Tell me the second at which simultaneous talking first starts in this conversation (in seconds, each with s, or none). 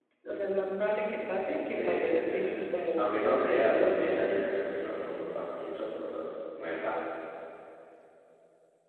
1.7 s